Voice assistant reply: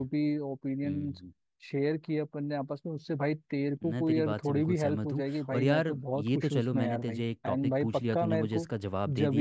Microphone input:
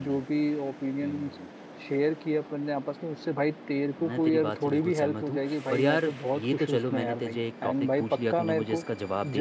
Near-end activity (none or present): none